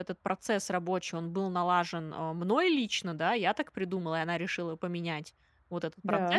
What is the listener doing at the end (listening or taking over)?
listening